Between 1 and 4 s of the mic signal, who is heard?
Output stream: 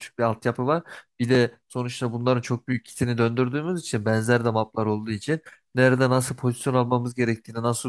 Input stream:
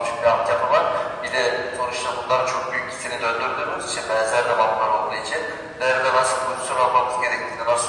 echo only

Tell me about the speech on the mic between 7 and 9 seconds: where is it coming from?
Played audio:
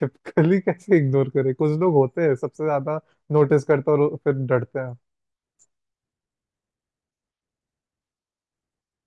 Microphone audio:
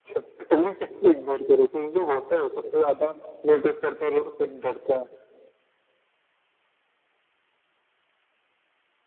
neither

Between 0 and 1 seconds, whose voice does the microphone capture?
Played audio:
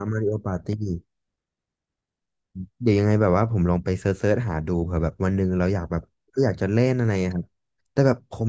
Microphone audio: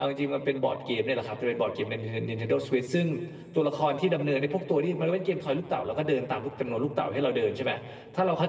user only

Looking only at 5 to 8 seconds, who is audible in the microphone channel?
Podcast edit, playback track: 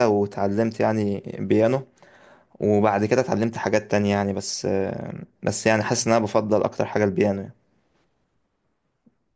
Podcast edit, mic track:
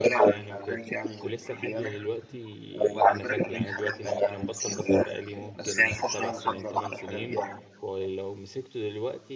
both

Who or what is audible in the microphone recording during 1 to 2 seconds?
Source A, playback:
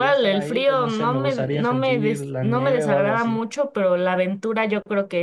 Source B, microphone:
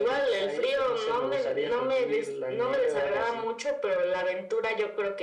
echo only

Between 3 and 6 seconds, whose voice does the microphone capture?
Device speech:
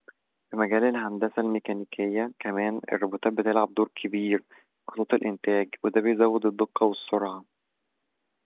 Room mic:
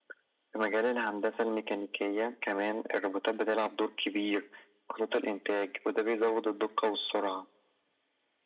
echo only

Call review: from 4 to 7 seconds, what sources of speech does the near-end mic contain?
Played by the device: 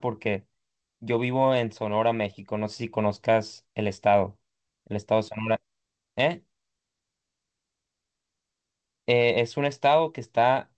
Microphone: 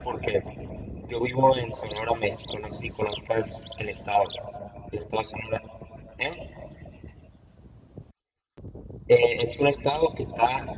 echo only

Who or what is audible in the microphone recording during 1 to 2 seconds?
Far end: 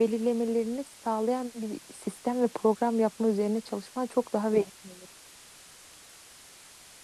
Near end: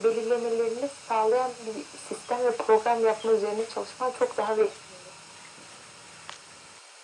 echo only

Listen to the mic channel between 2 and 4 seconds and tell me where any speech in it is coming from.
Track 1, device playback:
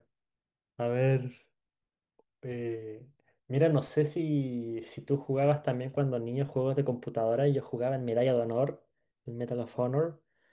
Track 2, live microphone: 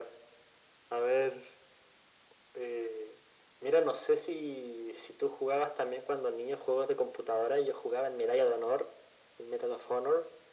echo only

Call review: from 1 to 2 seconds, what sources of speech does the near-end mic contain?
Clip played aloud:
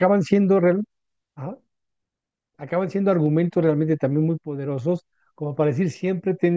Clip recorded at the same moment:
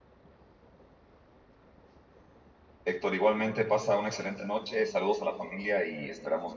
neither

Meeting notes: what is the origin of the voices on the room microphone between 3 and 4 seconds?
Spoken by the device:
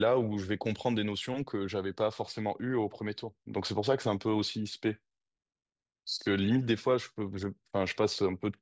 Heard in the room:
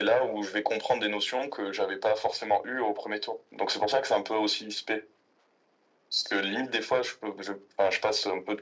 echo only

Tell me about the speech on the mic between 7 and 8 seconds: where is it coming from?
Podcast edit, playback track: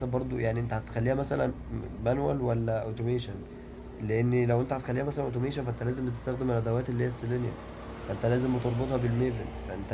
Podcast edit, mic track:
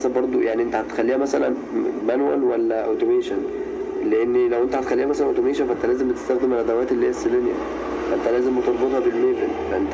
echo only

